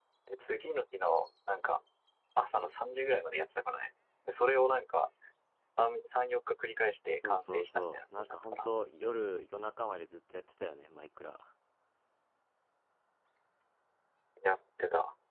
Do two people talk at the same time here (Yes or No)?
Yes